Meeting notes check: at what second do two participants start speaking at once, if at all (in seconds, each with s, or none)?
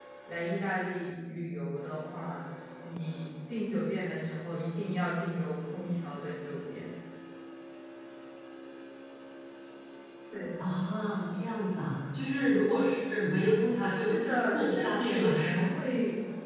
13.9 s